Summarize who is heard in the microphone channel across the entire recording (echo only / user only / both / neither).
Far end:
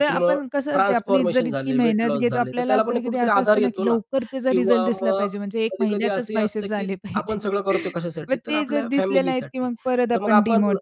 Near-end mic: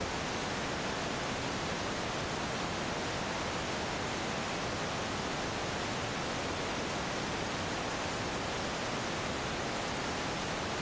neither